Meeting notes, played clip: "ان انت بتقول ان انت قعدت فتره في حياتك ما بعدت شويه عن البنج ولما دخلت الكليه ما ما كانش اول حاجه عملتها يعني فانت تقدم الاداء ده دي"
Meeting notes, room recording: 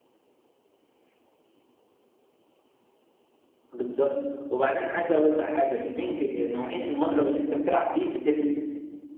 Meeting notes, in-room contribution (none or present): present